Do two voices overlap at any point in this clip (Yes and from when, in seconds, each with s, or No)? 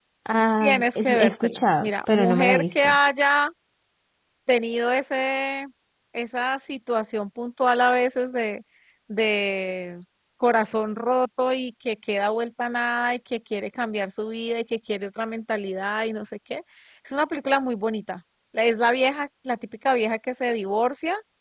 Yes, from 0.6 s